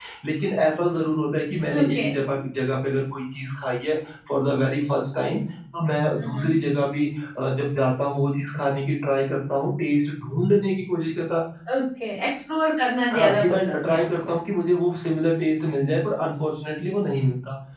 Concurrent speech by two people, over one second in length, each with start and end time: 13.1-14.4

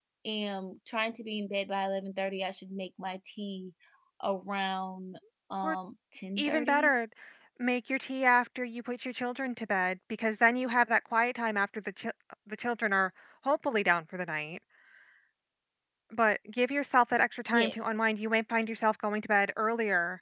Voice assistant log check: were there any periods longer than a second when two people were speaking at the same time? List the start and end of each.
none

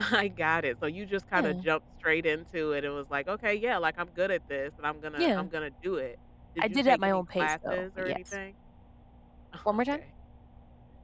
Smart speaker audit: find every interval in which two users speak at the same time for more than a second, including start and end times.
6.6-8.4

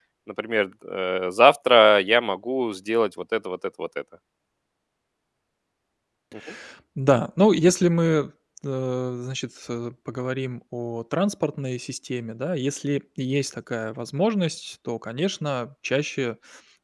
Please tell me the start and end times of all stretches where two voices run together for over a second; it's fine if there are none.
none

